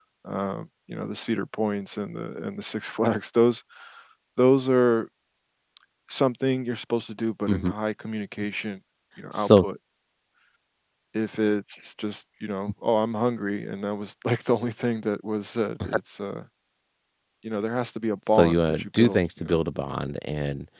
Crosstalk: present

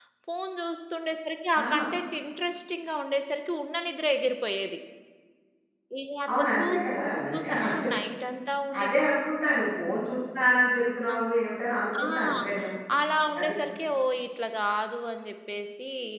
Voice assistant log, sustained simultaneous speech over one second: present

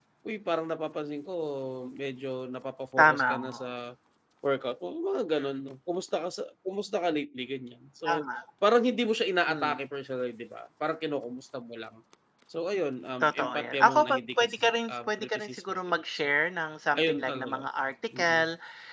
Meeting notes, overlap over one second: present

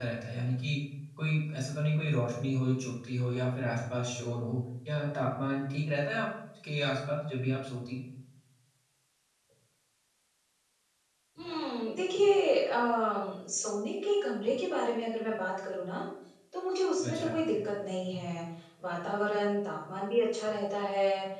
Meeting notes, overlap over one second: none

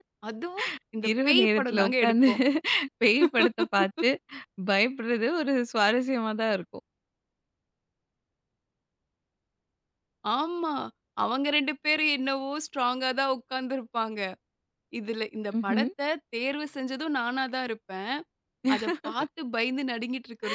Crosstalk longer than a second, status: present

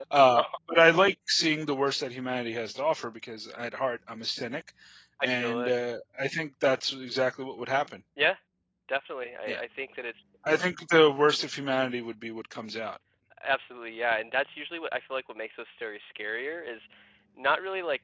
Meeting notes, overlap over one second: none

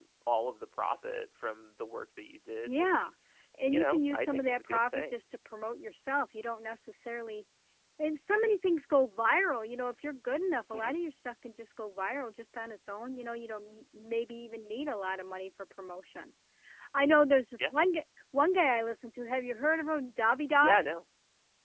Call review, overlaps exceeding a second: present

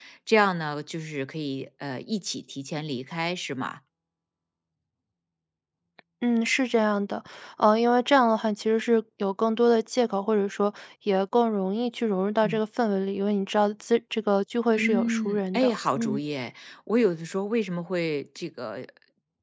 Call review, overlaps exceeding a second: present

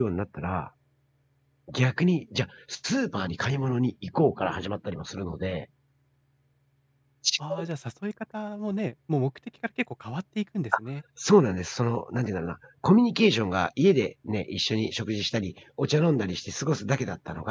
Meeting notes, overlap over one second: none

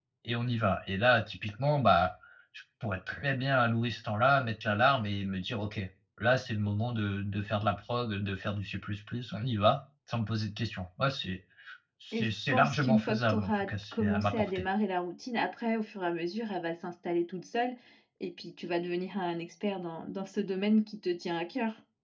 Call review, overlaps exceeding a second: present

